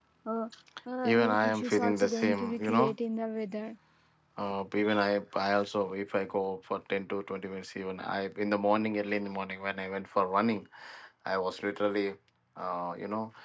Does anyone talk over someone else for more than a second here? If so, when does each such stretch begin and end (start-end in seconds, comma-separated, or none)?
1.0-2.9